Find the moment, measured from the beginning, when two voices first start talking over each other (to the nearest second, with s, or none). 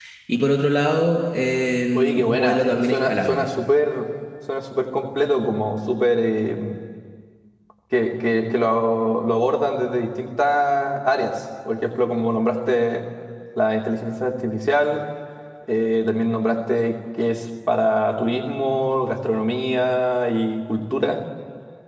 2 s